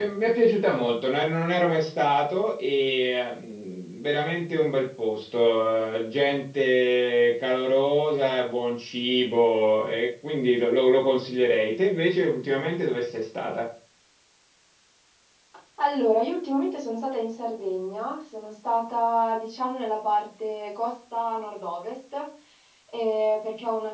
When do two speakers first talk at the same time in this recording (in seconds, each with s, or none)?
none